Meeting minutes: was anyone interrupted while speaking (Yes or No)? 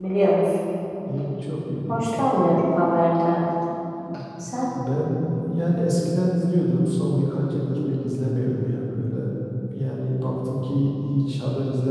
No